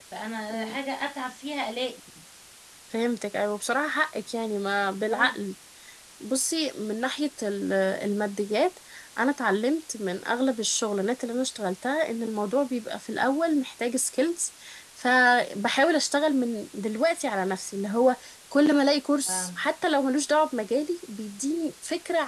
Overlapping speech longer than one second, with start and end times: none

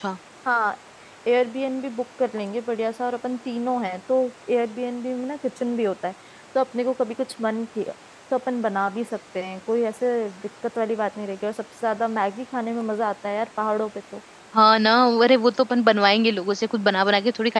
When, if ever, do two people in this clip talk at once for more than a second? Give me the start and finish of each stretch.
none

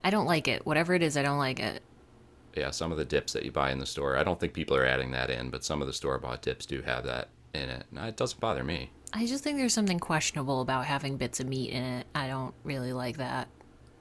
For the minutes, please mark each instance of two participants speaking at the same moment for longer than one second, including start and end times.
none

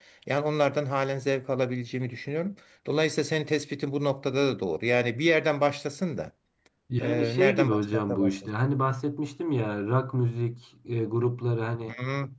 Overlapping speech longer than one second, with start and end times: 7.0-8.5

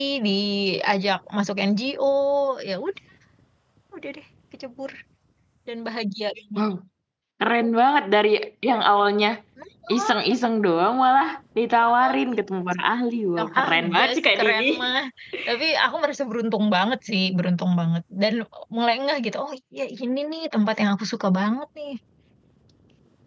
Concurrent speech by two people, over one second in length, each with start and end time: 13.4-14.6

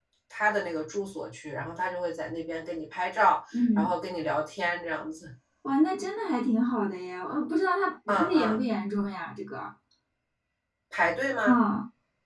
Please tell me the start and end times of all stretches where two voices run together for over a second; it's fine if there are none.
none

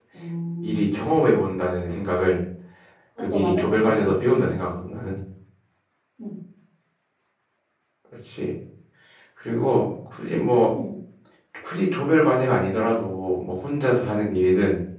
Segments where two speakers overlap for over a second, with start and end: 3.3-4.6

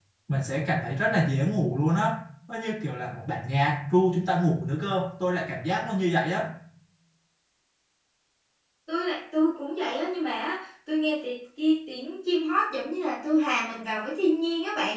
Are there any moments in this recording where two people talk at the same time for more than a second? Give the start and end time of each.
none

